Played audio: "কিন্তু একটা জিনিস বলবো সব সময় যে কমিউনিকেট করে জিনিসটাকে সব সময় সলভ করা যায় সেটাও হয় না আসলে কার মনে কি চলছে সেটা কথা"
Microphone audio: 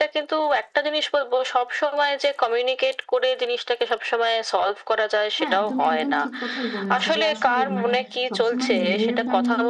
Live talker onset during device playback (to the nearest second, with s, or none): 5 s